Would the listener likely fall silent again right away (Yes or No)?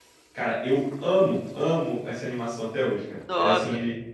Yes